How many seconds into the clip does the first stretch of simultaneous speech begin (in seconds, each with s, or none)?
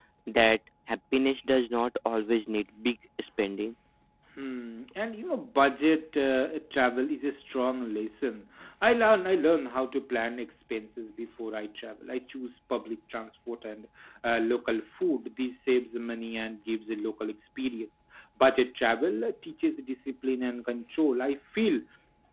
none